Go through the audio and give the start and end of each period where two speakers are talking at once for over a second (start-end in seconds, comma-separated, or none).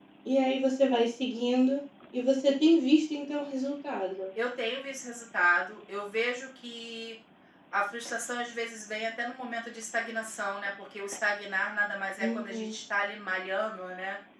none